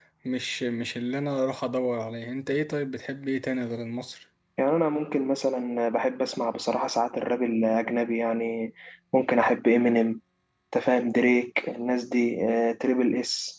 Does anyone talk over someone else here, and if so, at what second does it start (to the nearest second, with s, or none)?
none